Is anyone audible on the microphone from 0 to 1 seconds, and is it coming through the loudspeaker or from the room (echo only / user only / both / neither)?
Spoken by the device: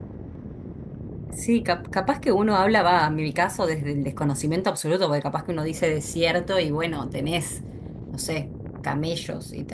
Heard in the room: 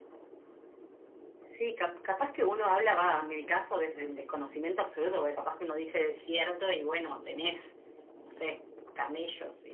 neither